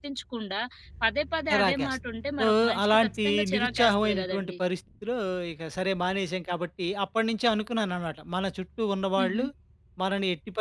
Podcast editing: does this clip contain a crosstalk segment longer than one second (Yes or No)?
Yes